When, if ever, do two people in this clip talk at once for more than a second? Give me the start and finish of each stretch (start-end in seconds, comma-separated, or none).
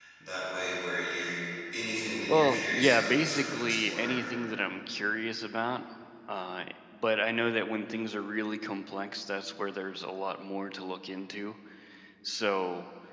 2.3-4.2